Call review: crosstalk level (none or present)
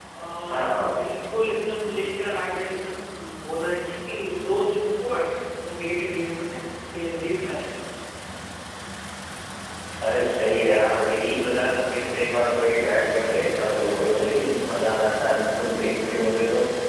present